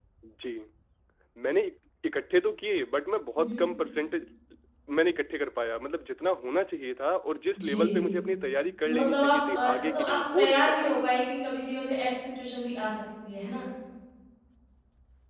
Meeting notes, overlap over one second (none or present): present